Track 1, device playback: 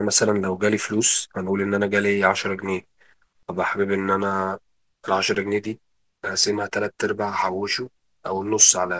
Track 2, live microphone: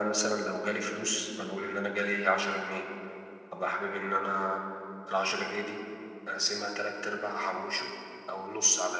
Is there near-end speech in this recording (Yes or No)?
No